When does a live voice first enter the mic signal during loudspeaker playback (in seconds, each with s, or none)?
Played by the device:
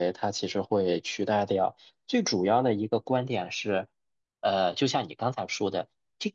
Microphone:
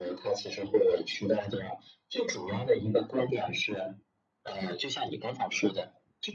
none